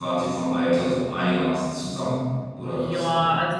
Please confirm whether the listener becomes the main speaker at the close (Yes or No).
Yes